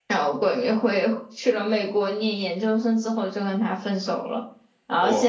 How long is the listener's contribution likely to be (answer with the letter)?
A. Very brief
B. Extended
A